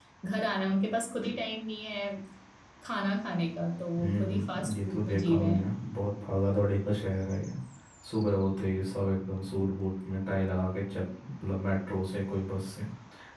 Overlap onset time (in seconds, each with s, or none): 3.9 s